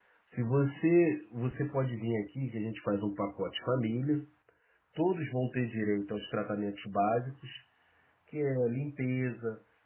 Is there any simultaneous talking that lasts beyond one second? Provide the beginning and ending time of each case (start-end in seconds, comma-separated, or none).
none